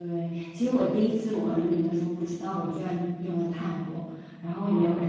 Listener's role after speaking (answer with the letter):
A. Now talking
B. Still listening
B